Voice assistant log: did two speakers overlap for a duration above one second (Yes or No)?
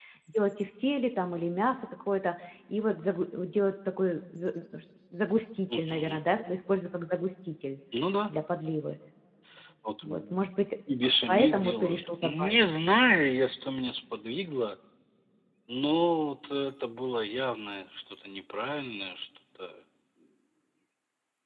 Yes